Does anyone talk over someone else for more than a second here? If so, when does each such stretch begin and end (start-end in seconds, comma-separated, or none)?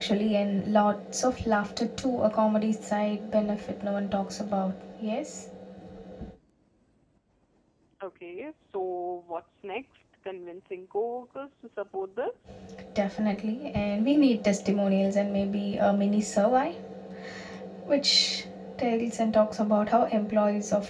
none